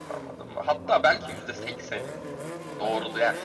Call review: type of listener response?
listening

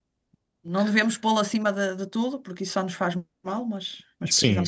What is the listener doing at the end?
taking over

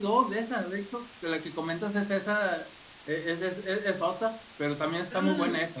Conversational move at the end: listening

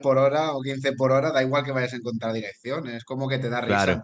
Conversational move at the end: listening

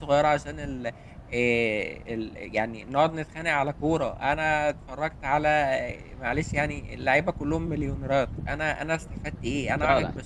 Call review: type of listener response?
listening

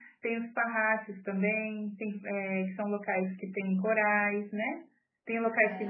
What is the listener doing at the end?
listening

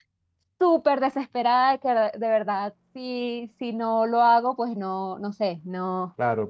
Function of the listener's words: taking over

